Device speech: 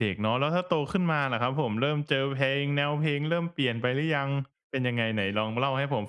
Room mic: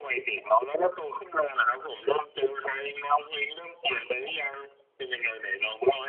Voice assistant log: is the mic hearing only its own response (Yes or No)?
Yes